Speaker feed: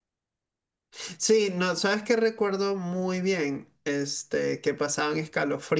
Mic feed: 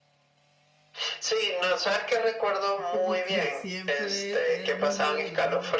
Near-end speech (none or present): present